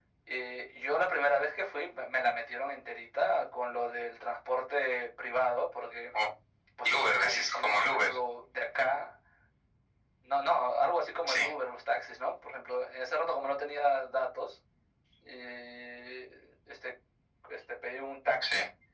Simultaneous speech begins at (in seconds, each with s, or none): 6.8 s